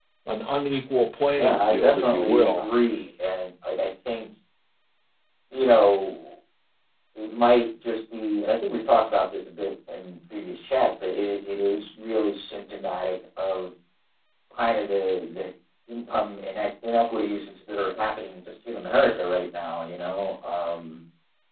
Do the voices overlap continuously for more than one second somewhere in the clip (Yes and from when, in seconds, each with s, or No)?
Yes, from 1.4 s